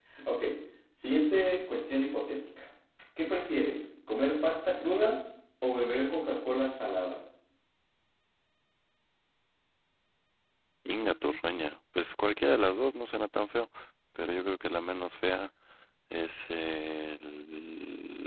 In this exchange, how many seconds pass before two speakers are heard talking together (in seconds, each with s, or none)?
none